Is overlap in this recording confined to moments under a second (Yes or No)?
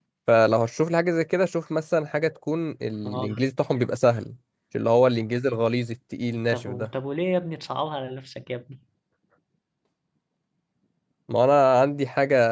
Yes